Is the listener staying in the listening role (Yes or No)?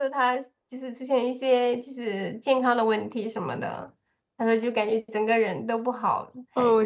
No